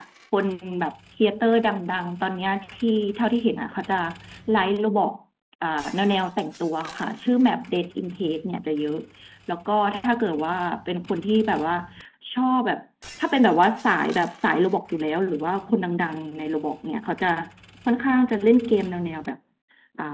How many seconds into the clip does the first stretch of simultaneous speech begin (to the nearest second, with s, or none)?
none